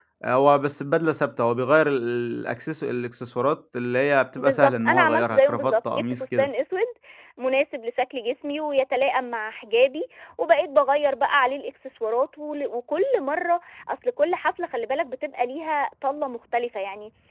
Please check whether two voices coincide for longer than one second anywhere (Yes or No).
Yes